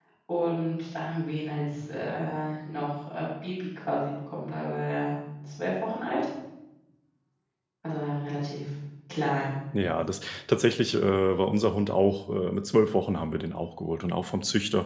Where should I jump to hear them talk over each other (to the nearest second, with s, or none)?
none